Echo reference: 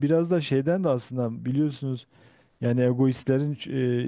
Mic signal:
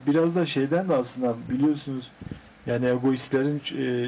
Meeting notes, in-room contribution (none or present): none